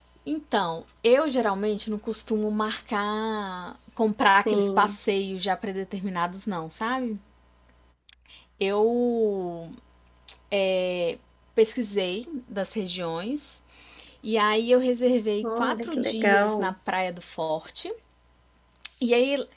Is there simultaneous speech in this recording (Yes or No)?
Yes